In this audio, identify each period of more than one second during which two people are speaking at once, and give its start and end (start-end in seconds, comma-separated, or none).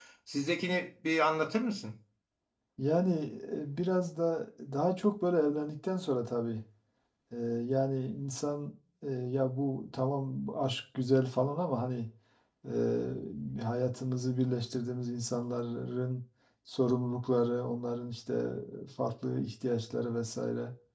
none